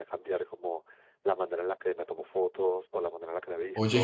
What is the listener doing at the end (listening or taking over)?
listening